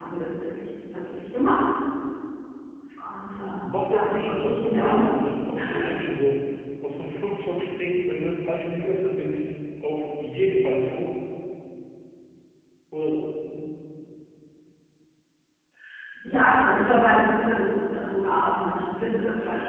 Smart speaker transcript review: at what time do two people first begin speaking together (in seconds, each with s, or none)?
3.6 s